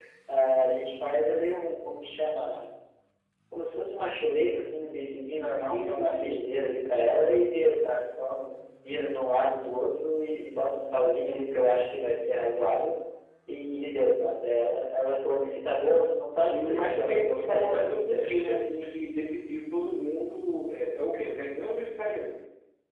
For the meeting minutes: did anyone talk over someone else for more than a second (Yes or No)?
Yes